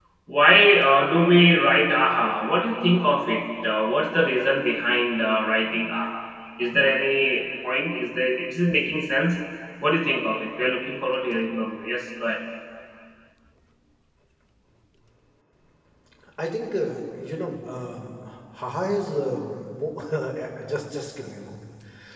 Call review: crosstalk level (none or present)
none